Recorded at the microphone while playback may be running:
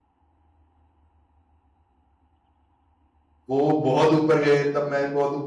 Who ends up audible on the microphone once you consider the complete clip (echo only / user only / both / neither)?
user only